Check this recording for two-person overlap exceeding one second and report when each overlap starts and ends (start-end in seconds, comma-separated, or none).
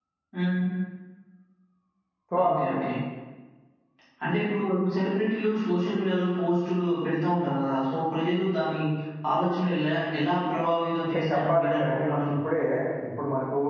11.0-12.3